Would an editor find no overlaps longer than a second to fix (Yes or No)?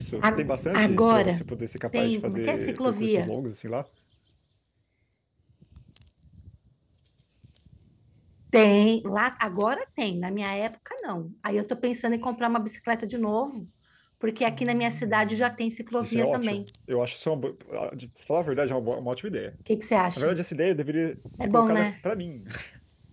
No